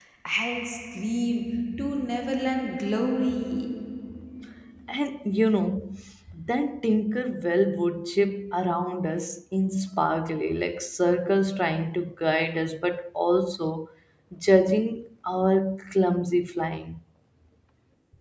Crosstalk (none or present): none